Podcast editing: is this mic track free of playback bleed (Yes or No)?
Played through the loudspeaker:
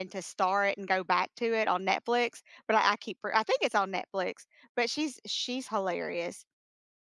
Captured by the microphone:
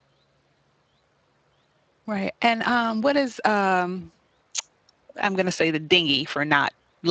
Yes